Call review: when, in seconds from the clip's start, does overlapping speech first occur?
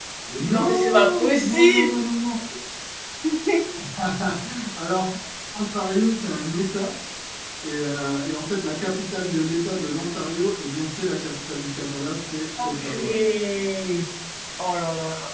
1 s

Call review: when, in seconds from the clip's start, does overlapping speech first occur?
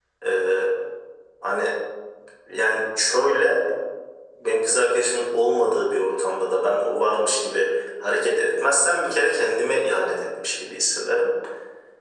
none

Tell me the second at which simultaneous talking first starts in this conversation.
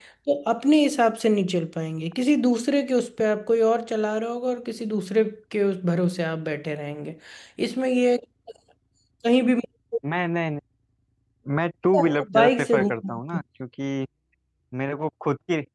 12 s

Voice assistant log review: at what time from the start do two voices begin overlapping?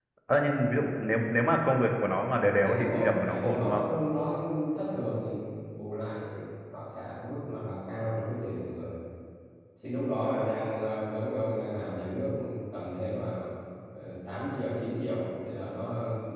3 s

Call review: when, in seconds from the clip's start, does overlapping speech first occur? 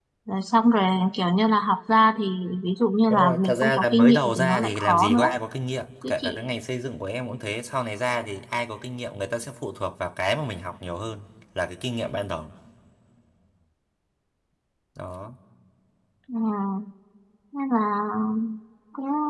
3 s

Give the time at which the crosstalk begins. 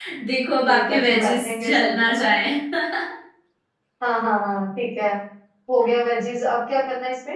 1 s

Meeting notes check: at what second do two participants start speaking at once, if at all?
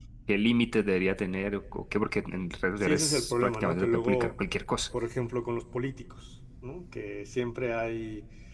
3 s

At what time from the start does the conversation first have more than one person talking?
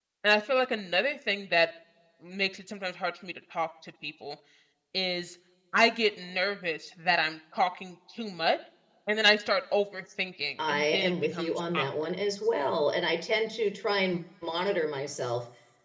11 s

